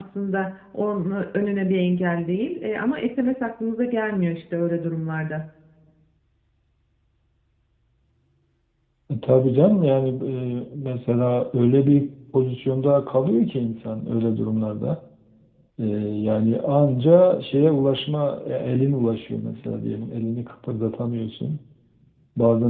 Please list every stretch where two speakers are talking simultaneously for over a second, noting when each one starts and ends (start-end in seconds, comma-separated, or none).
none